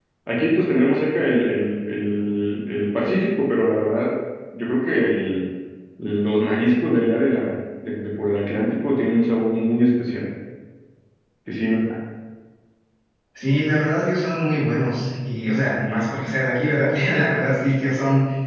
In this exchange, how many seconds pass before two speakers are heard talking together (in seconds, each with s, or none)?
none